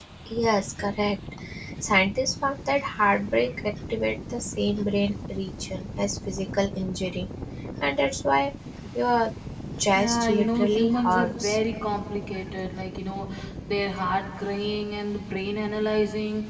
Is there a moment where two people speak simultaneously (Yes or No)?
Yes